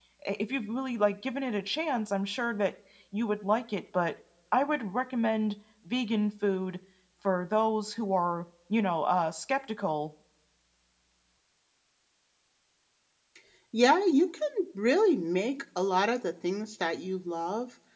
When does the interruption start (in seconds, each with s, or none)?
none